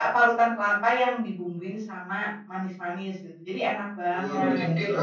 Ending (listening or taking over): taking over